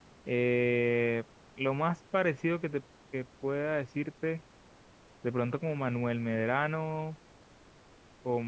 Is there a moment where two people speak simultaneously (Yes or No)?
No